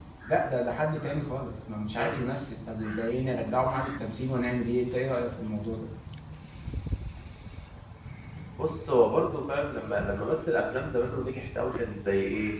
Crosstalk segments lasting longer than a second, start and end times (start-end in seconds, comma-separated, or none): none